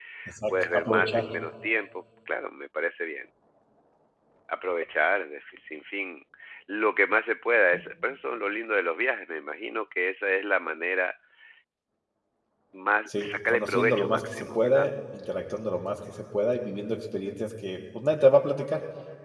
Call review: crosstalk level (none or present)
present